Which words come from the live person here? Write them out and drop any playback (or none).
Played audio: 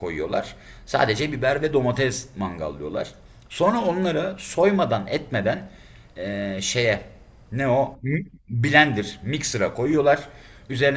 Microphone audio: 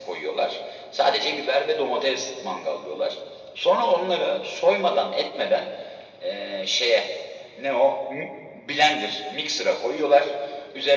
none